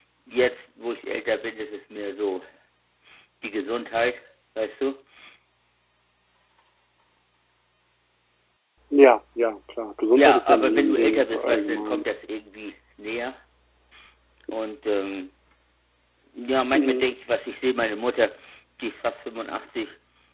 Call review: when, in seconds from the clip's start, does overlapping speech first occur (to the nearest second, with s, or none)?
10 s